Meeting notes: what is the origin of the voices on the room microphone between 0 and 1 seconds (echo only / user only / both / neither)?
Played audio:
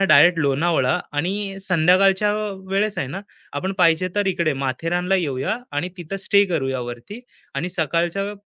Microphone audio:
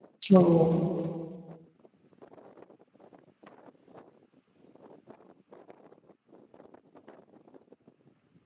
user only